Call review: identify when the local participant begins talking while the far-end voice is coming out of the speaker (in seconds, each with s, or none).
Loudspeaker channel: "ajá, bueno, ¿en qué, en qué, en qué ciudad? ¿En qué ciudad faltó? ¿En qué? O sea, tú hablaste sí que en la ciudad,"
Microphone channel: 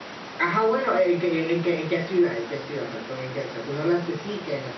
none